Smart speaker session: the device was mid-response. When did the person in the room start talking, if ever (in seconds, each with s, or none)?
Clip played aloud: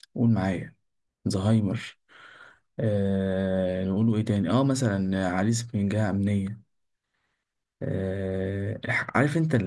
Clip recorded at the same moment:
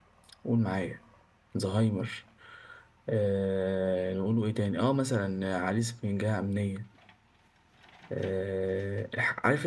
none